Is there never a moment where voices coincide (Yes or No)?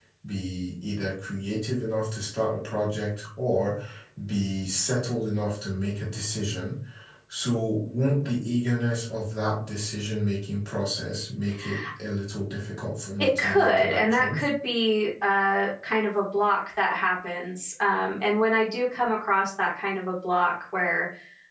No